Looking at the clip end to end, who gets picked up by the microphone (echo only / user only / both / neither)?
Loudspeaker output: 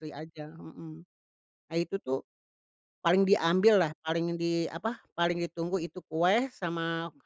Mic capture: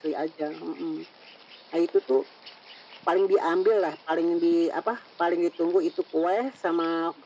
echo only